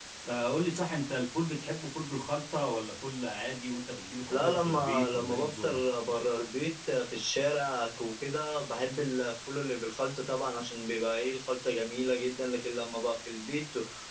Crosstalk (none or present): present